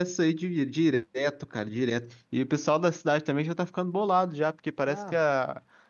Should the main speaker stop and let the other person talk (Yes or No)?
No